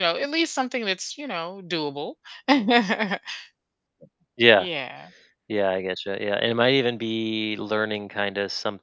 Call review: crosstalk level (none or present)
none